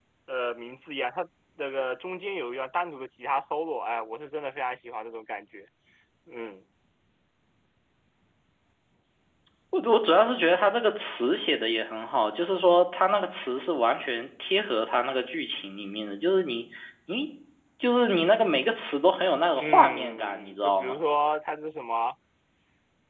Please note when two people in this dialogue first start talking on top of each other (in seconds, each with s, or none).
19.6 s